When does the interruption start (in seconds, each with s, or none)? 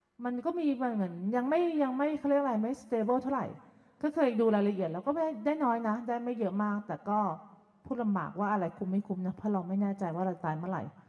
none